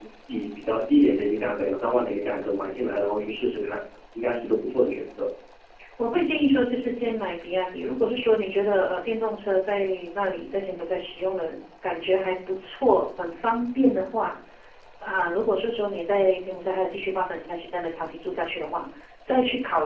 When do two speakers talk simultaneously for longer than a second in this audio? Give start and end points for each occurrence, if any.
none

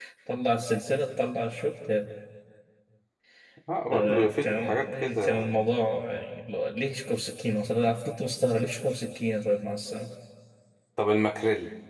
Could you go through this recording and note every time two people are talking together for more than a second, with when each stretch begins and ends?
3.9-5.5

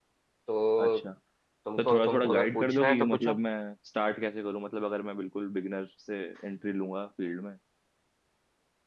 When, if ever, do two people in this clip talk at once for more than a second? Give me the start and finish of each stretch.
1.8-3.4

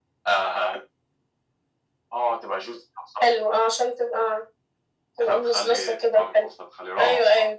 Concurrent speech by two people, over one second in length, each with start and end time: 5.2-6.5

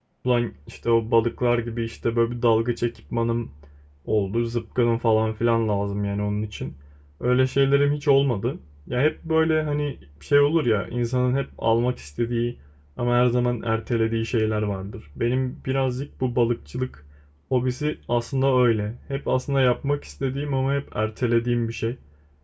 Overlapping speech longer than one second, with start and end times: none

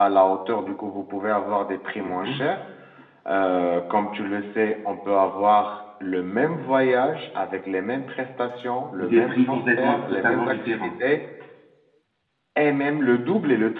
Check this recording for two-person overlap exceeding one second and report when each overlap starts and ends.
9.0-10.9

